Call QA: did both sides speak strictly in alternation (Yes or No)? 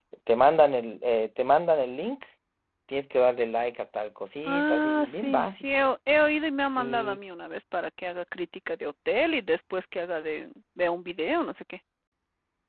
No